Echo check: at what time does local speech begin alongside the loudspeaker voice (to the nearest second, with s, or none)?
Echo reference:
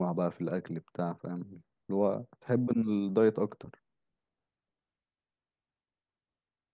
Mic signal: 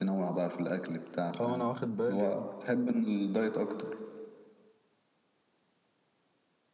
1 s